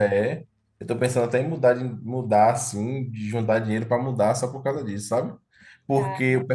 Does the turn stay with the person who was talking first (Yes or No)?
Yes